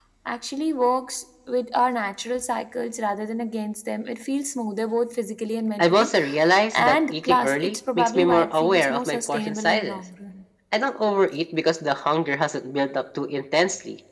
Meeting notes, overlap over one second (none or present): present